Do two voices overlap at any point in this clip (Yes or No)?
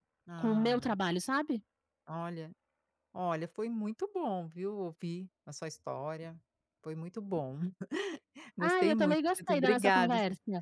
Yes